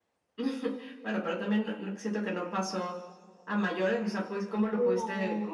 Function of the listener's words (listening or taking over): listening